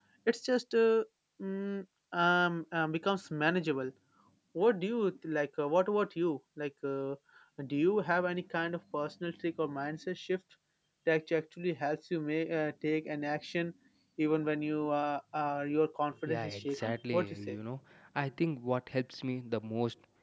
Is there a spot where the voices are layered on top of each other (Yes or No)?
Yes